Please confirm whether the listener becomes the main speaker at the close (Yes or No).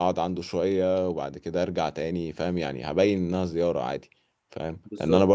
No